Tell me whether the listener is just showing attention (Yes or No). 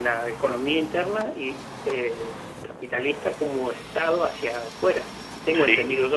No